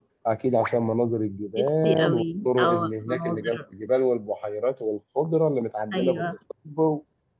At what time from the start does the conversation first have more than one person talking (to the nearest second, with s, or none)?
2 s